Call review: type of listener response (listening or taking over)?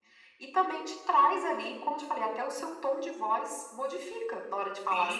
taking over